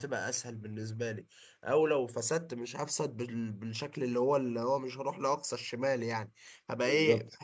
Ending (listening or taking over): listening